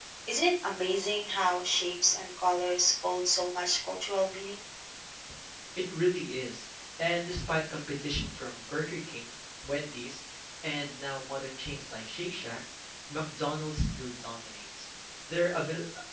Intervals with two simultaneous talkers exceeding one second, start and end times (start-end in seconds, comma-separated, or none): none